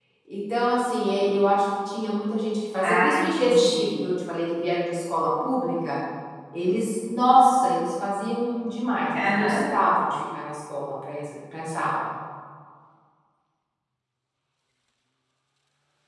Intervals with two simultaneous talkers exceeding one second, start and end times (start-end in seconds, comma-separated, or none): 2.8-4.1